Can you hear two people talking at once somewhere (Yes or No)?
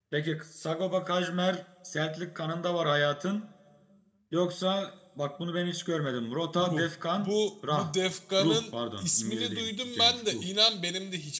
Yes